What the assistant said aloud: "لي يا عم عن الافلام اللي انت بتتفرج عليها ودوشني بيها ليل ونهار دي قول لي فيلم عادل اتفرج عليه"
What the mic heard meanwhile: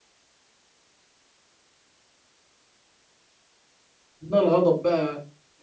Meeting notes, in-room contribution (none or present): present